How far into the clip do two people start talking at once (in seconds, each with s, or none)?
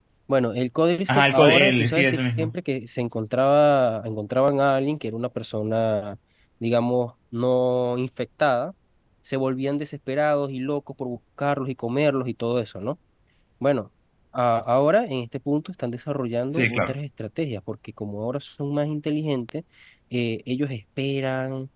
1.1 s